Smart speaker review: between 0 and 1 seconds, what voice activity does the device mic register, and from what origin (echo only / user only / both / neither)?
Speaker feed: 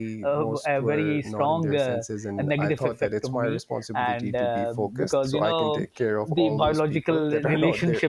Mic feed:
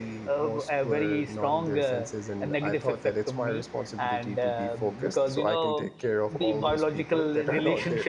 echo only